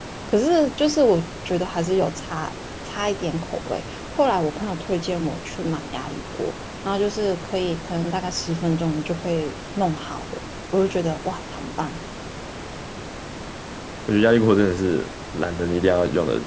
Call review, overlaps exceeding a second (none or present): none